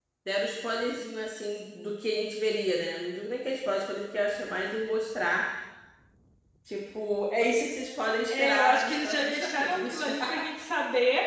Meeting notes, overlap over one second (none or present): present